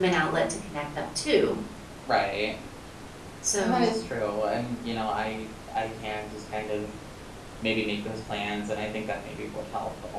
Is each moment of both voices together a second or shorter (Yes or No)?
Yes